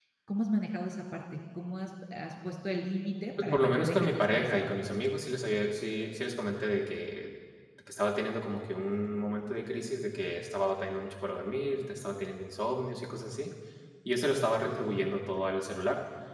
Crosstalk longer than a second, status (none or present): present